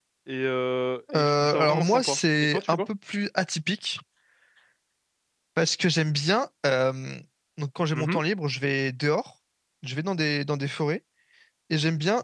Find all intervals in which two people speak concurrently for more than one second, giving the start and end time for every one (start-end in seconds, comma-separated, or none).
1.1-2.8